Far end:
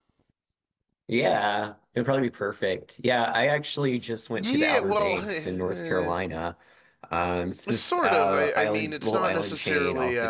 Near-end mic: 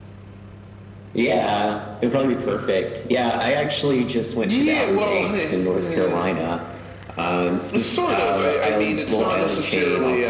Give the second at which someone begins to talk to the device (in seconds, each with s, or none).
none